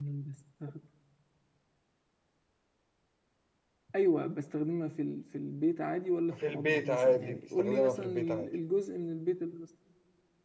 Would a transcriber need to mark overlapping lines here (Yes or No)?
Yes